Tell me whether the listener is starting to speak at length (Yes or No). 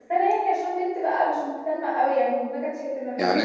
Yes